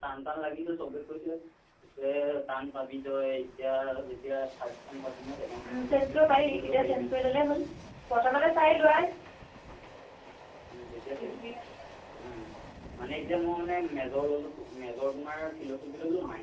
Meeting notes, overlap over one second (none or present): present